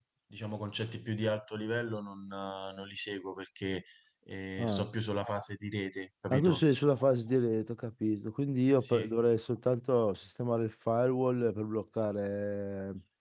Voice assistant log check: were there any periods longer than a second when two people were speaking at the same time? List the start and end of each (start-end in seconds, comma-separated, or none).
none